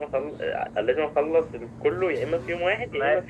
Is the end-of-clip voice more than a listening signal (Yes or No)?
Yes